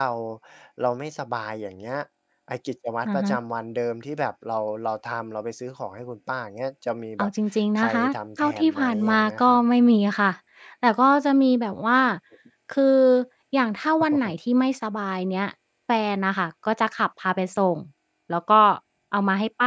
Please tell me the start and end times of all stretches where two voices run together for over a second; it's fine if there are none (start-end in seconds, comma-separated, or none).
7.8-9.6